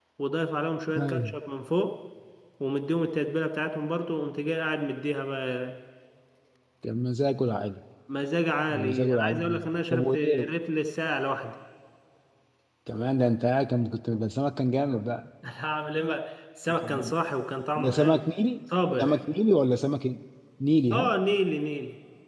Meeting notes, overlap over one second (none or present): present